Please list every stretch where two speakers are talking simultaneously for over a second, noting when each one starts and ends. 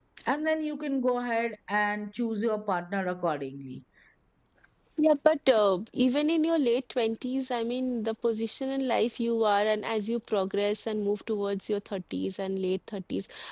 none

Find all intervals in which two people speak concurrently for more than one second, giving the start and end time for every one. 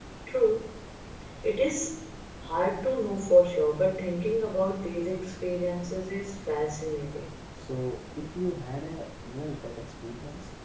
none

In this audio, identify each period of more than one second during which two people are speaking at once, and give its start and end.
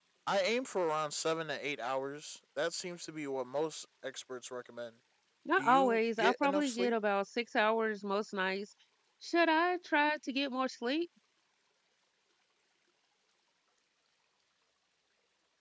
5.6-6.9

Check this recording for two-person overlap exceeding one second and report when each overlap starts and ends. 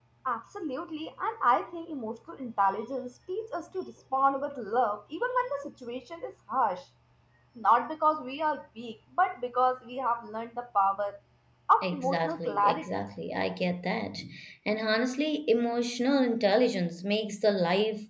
11.8-13.0

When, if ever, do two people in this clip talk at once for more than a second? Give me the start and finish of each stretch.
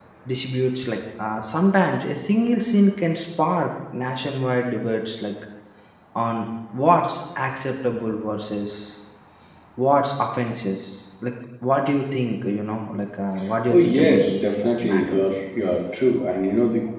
13.7-15.2

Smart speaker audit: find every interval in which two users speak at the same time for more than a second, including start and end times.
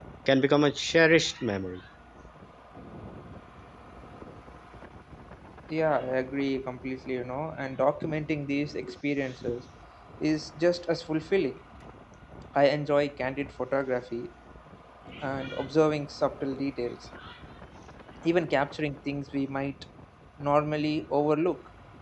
none

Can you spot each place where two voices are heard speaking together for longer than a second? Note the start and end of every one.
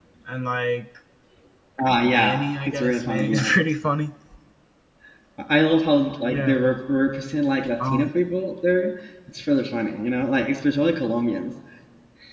2.0-3.6

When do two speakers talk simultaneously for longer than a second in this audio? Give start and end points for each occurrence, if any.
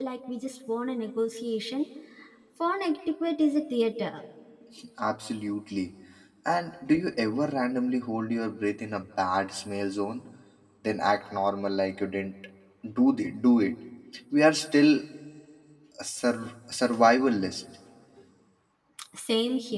none

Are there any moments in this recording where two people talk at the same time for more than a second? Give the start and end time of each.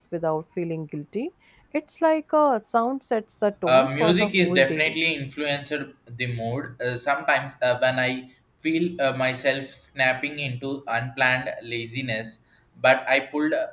3.6-5.0

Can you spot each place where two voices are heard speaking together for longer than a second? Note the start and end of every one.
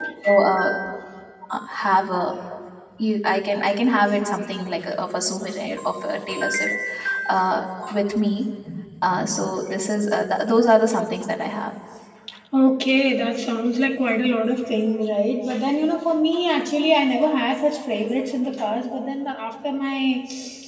none

